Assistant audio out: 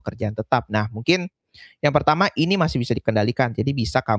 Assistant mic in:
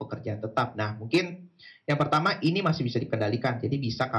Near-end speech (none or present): none